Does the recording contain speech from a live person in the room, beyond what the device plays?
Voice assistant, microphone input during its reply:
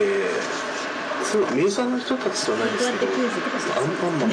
Yes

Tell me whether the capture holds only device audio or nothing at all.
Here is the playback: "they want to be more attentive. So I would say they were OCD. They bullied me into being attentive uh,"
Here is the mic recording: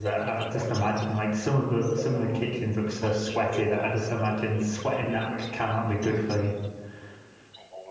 No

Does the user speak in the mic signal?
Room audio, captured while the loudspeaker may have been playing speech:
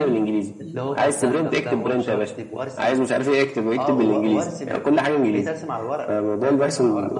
Yes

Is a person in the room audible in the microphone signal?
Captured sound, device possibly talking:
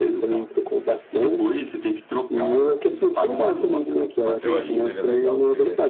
Yes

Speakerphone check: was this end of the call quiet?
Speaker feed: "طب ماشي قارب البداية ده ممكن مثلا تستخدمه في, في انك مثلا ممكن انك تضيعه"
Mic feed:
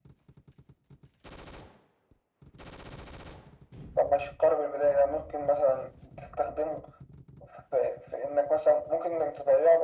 Yes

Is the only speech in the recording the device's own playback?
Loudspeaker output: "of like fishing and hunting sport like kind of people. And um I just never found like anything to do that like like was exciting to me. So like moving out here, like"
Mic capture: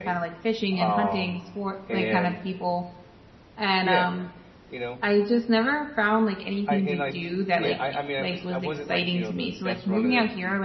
No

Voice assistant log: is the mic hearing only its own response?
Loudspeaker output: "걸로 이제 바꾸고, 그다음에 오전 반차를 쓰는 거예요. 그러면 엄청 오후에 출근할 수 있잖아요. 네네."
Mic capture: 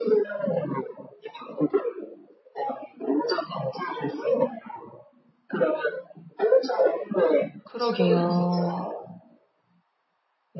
No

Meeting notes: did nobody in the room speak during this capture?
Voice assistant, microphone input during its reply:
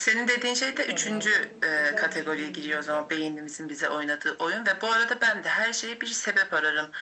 No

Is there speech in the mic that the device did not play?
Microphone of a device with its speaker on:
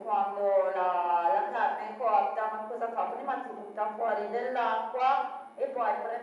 No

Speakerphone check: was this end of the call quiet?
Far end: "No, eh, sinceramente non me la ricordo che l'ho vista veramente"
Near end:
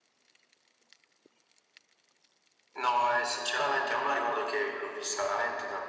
Yes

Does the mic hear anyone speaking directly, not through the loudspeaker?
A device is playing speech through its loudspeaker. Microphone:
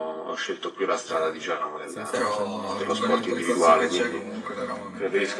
Yes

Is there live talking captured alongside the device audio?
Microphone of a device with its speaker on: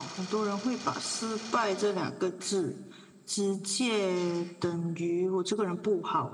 No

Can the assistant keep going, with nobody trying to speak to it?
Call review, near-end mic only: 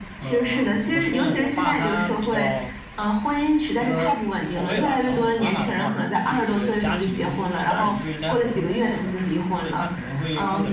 No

